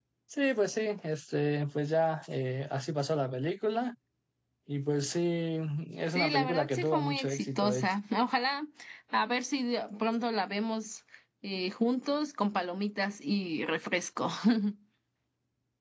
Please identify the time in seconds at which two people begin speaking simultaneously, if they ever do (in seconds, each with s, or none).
6.1 s